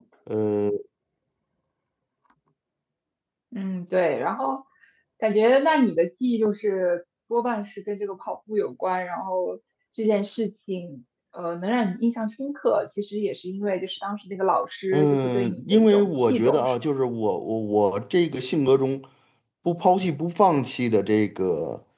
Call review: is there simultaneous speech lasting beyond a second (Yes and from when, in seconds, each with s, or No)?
Yes, from 14.9 s